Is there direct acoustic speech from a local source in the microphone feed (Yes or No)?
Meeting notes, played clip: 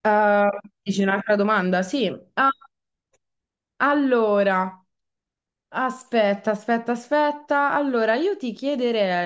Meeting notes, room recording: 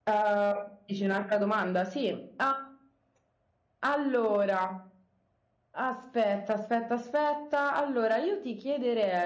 No